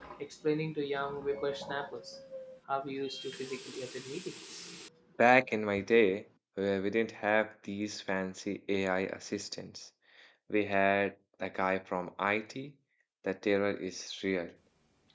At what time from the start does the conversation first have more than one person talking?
none

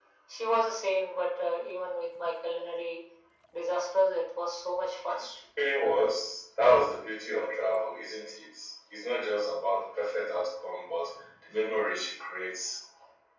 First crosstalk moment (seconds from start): none

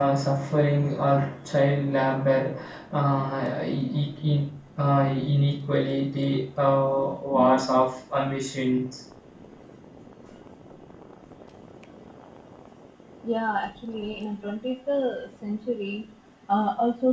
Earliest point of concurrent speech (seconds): none

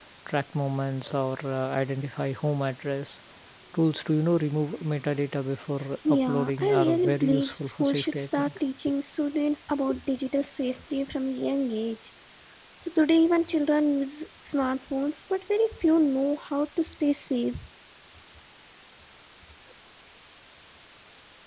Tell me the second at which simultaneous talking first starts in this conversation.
6.0 s

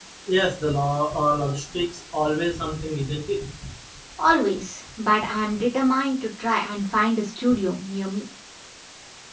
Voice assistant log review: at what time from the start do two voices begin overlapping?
none

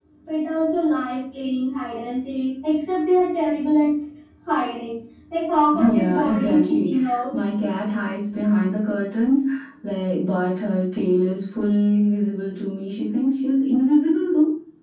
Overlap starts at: 5.7 s

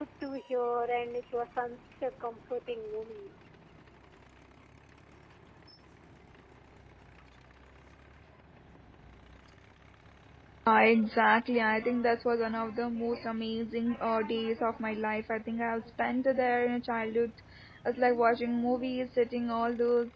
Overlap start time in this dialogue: none

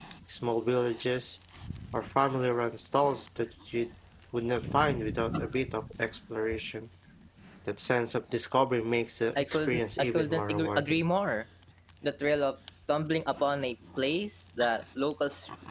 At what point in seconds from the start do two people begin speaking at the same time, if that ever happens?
9.4 s

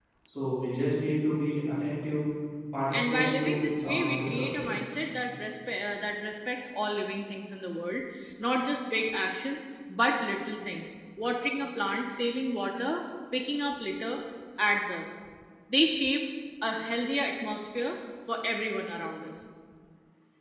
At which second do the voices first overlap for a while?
2.9 s

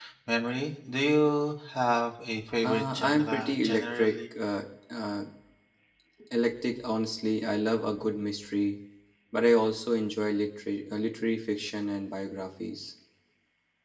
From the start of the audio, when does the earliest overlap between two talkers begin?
2.6 s

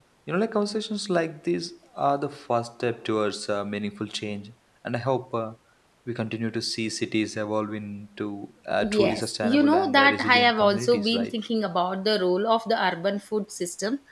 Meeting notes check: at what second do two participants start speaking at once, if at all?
8.8 s

